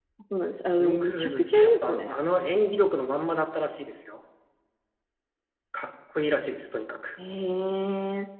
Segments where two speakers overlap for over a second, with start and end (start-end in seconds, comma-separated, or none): 0.7-2.2